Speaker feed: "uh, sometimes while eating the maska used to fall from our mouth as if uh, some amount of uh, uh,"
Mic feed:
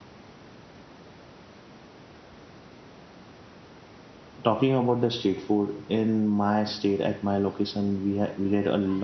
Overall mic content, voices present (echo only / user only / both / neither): user only